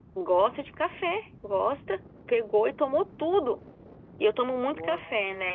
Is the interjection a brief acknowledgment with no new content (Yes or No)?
Yes